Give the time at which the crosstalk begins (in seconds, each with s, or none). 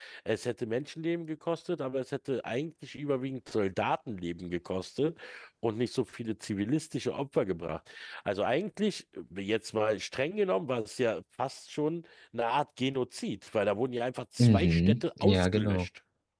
14.4 s